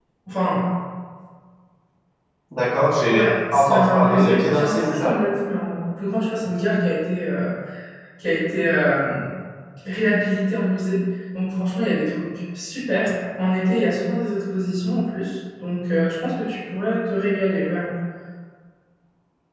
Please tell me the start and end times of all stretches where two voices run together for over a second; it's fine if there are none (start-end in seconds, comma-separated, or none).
3.1-5.1